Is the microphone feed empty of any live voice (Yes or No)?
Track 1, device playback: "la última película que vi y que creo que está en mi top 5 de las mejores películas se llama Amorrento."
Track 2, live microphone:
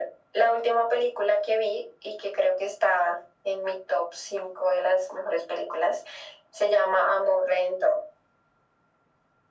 Yes